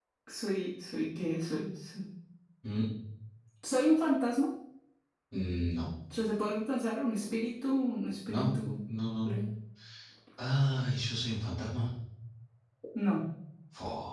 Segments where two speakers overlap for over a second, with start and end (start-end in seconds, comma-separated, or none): none